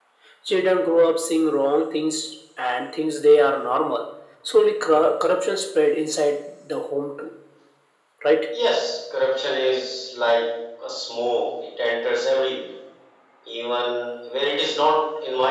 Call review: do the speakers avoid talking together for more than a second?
Yes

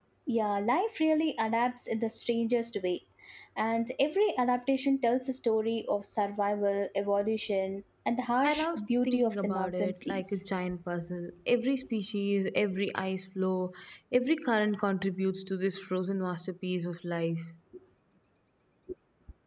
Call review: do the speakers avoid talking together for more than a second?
No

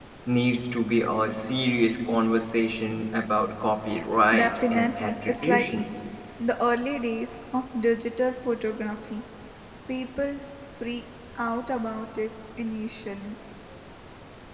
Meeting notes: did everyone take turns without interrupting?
No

